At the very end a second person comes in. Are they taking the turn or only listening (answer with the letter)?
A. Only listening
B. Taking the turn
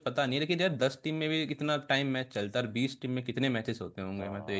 B